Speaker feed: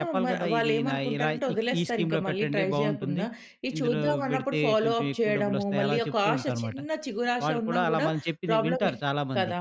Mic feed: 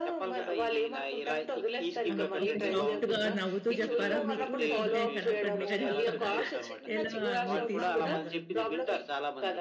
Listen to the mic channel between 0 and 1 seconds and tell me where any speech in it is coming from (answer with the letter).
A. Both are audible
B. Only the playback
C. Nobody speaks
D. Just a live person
B